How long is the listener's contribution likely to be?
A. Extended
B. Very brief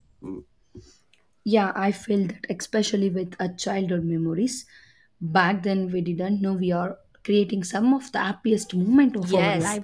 A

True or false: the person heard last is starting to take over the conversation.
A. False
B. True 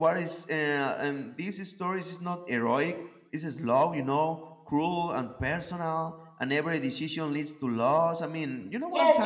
B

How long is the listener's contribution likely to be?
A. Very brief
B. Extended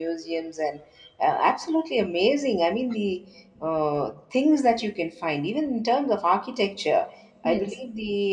A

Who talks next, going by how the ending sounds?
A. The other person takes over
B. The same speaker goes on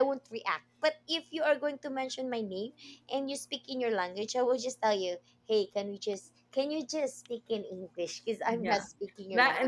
A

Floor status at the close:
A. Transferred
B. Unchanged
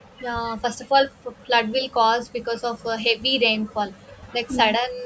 B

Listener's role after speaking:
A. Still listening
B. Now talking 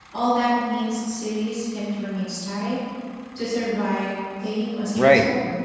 B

